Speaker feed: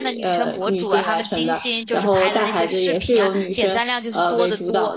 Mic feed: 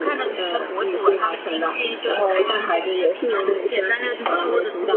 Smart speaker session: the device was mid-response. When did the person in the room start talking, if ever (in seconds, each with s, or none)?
none